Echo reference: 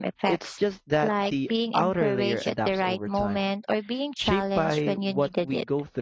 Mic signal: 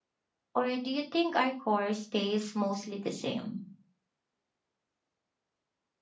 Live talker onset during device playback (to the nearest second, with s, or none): 1 s